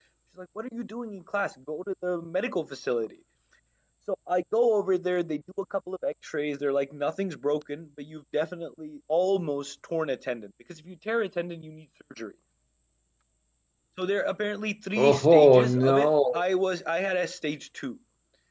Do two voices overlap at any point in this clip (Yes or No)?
Yes